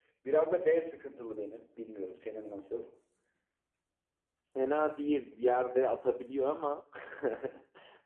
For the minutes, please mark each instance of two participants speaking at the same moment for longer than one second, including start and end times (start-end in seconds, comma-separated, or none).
none